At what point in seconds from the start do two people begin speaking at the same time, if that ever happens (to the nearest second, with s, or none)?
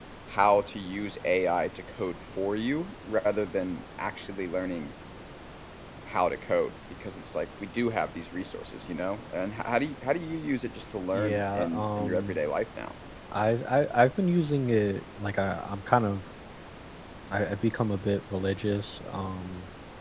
11 s